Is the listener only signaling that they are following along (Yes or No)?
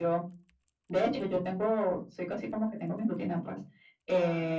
Yes